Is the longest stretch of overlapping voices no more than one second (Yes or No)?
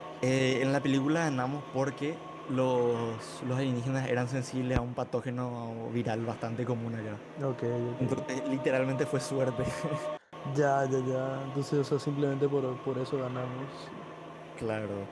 Yes